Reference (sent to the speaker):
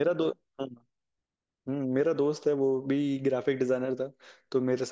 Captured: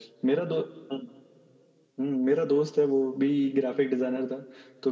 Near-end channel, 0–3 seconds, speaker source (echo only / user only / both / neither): echo only